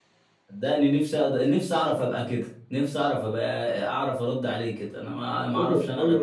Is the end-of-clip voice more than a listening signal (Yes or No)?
Yes